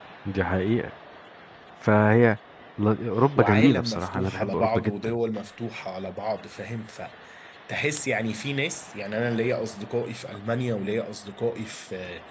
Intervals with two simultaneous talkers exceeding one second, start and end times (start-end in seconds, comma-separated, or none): 3.4-5.1